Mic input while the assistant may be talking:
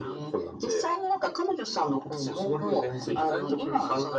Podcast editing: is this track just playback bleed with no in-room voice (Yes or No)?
Yes